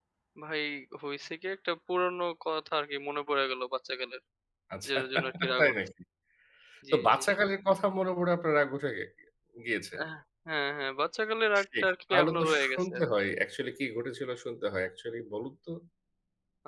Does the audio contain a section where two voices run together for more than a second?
Yes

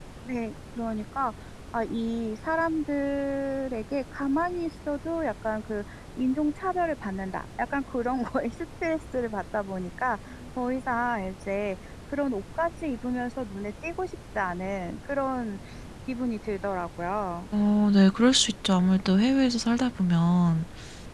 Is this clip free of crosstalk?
Yes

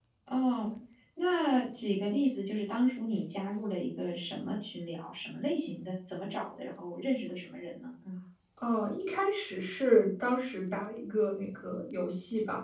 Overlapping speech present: No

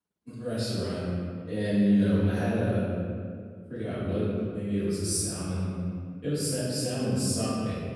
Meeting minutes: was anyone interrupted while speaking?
No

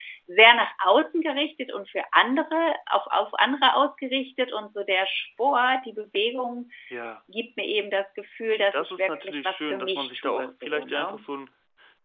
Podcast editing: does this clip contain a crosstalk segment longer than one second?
Yes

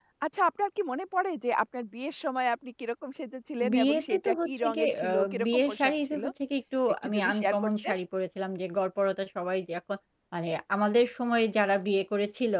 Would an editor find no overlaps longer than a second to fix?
No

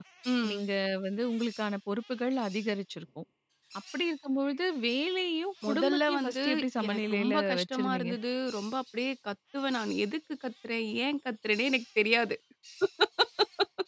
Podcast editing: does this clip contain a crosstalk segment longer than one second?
Yes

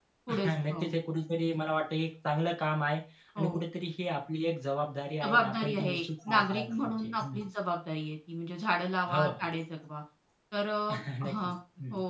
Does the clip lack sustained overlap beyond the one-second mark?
No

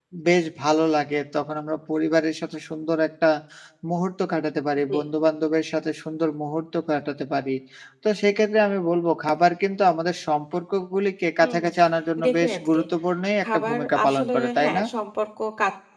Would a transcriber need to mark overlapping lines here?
Yes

